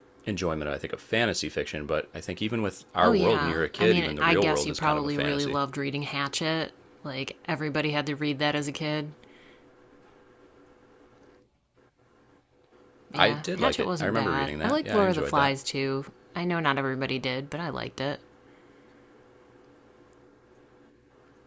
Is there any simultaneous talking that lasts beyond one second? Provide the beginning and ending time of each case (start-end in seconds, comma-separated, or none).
3.0-5.6, 13.2-15.5